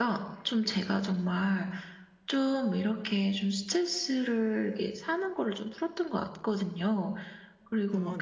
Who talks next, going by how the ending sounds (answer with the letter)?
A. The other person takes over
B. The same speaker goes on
B